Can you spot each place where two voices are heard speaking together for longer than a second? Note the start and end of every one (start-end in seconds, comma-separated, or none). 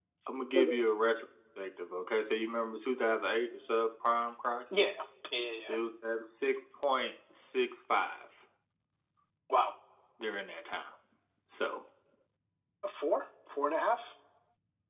none